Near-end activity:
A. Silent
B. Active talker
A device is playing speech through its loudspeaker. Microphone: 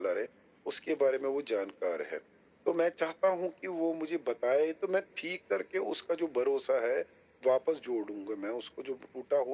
A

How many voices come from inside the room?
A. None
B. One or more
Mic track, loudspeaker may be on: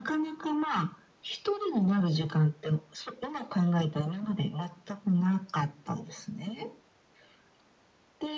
A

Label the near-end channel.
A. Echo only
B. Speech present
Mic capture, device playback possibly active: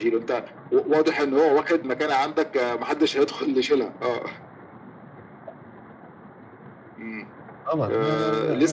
B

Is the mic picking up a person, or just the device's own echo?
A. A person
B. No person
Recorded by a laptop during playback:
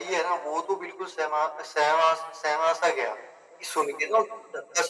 B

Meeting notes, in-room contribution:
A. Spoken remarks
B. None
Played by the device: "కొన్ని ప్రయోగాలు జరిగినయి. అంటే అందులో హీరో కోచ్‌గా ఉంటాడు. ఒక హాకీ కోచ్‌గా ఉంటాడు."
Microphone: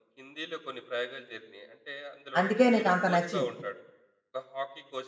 A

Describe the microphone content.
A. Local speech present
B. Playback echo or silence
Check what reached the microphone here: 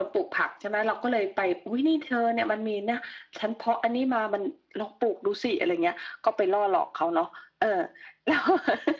B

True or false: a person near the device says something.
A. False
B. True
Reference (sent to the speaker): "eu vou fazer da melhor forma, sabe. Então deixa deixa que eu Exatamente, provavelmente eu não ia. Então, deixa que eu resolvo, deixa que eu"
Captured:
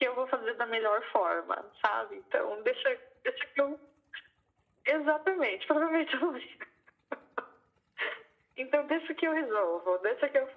A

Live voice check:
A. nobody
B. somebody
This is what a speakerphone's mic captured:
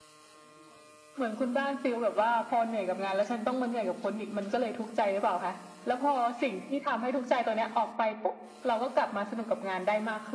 A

